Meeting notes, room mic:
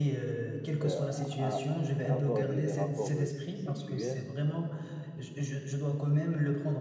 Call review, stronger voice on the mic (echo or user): echo